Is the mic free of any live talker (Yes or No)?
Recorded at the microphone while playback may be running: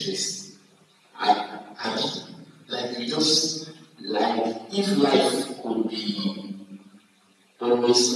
Yes